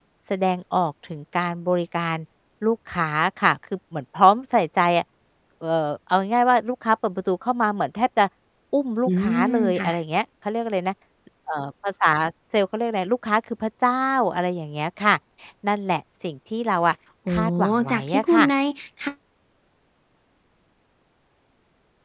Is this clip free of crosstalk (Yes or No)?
No